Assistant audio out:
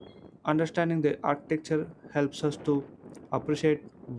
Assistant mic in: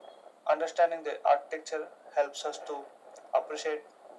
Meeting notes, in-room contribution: none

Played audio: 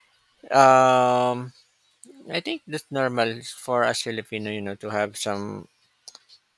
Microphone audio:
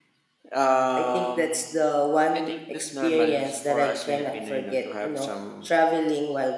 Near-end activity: present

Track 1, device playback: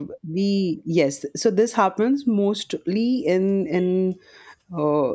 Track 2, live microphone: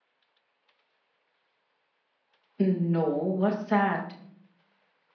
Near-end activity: present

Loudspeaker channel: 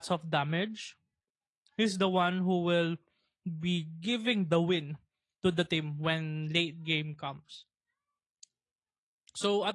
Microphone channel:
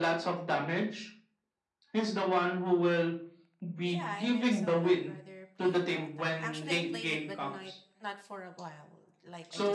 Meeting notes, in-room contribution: present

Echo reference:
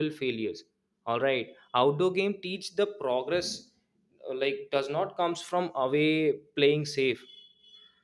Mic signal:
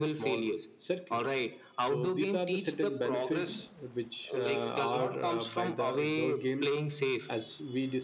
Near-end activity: present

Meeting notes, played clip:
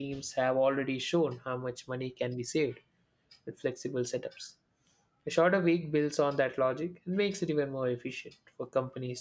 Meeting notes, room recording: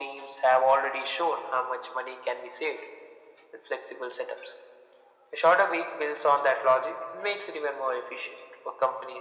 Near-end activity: none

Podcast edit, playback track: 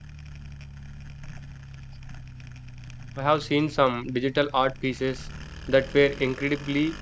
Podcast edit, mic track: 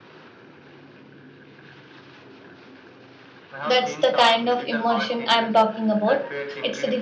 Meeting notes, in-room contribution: present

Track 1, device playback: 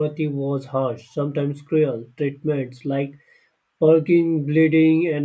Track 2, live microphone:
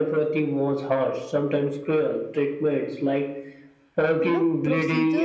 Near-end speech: present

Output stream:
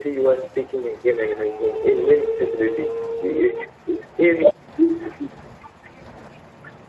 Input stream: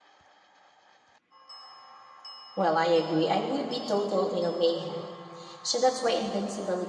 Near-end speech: present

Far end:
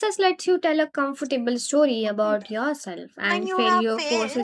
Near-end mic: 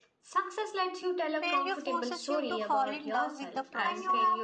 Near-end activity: present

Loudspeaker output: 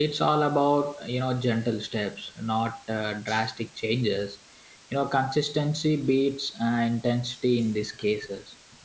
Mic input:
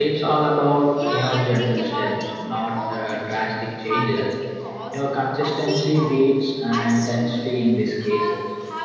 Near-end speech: present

